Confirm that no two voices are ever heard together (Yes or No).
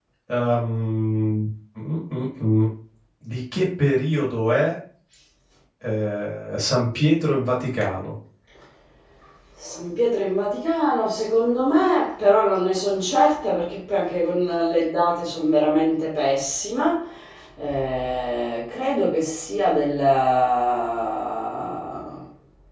Yes